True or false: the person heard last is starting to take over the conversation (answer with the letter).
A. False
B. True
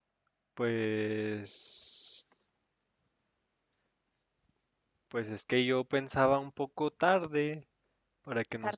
A